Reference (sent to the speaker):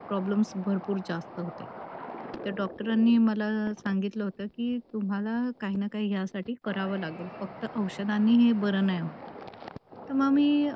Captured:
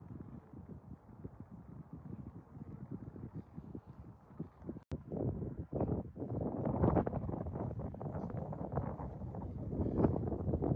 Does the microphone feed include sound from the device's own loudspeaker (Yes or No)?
No